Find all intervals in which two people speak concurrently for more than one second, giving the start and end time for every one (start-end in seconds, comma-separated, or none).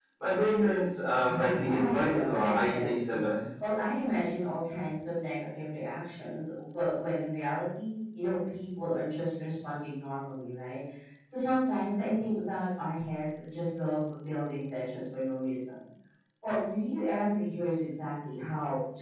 1.4-3.2